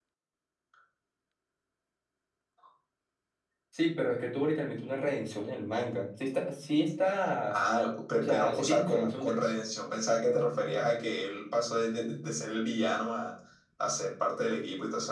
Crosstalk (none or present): present